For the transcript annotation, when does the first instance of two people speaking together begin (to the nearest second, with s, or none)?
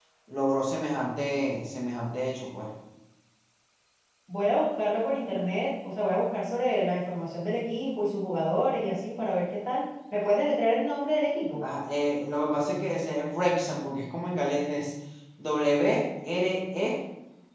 none